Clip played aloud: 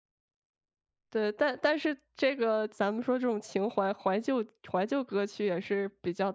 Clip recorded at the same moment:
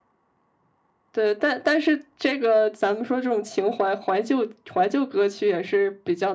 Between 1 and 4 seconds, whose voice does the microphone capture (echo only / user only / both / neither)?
echo only